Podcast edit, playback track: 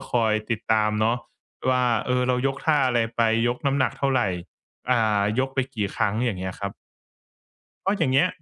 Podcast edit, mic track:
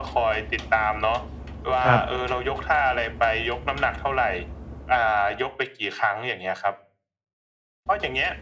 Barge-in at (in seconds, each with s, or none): 1.9 s